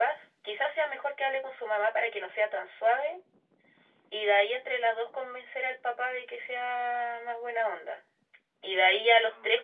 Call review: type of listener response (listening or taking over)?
listening